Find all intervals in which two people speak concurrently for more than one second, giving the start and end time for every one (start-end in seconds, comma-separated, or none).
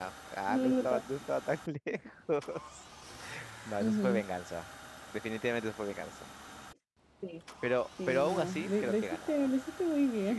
8.1-9.5